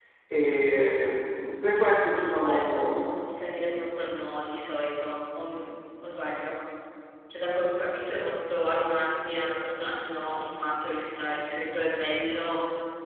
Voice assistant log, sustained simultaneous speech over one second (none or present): present